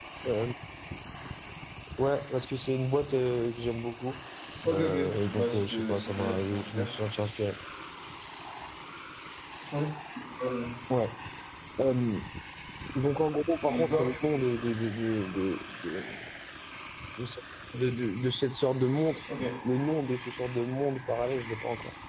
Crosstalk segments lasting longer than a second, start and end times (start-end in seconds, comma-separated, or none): 5.4-6.9